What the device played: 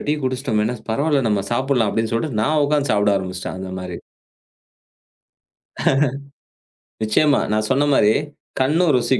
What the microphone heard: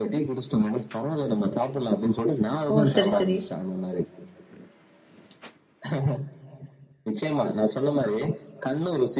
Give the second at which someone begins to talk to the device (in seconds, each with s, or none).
2.7 s